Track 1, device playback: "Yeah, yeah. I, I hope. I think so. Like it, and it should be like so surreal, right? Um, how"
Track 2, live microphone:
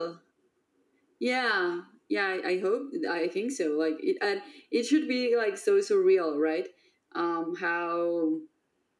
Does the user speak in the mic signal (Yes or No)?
No